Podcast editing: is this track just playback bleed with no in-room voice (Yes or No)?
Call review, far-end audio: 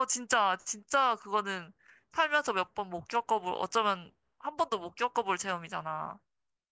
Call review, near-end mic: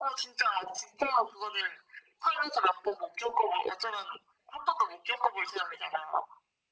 Yes